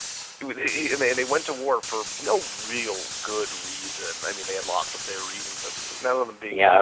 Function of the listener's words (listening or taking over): taking over